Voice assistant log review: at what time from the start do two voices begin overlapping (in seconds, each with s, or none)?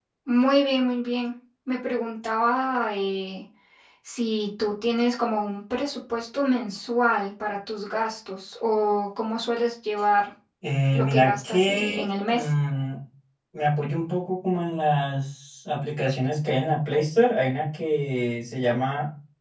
10.9 s